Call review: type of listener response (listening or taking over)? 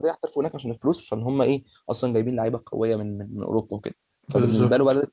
listening